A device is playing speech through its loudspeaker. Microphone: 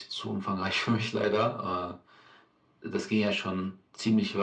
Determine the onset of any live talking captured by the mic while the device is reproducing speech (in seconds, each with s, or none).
none